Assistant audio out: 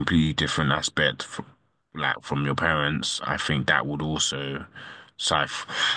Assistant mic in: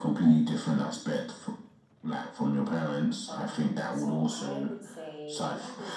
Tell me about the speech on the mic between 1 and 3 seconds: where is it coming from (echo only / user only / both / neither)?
echo only